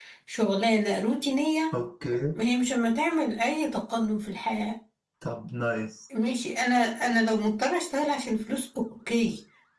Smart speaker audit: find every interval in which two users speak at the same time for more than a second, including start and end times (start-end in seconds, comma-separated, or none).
none